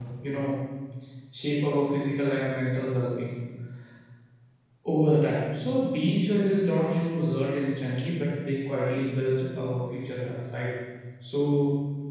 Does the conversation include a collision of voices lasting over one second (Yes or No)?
No